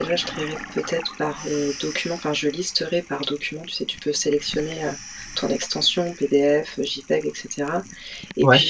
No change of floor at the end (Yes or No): Yes